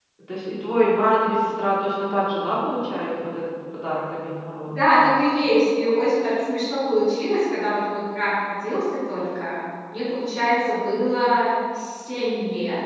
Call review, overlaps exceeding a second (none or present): none